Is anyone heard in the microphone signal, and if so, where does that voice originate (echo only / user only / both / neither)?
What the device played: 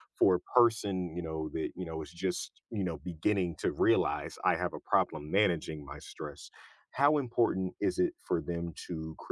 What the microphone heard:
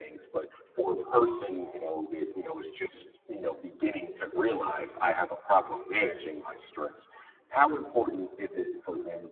echo only